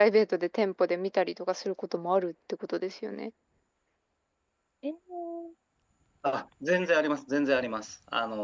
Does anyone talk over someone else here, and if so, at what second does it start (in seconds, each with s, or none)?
none